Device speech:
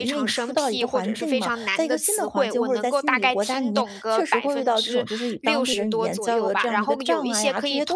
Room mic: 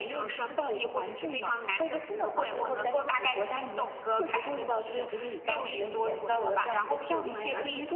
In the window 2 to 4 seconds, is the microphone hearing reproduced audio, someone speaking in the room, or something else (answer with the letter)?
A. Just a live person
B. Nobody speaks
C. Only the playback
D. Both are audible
C